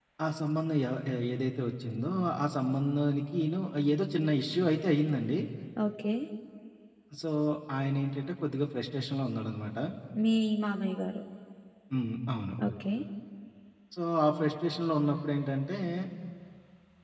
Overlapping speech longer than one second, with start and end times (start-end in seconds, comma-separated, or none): none